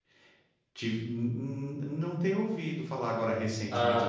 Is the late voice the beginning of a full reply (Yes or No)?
Yes